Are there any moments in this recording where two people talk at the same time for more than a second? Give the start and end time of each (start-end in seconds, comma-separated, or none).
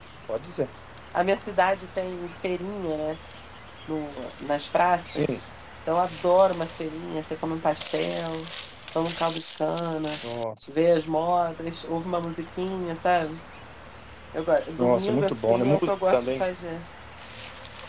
14.8-16.4